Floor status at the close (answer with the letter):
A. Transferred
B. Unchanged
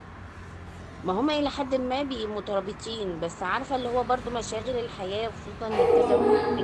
A